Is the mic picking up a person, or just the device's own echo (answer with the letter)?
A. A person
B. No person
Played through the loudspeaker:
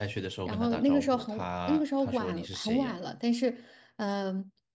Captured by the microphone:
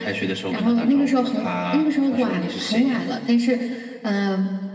B